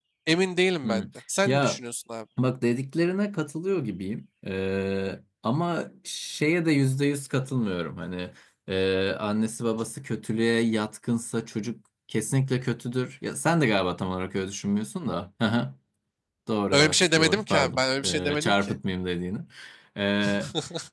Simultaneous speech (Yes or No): Yes